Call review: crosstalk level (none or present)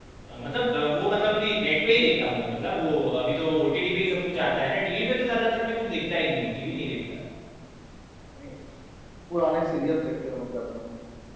none